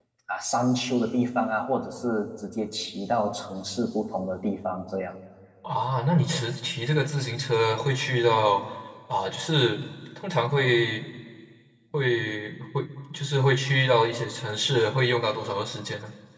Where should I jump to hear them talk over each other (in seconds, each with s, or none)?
none